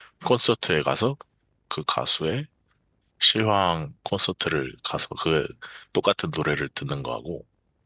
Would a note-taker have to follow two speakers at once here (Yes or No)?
No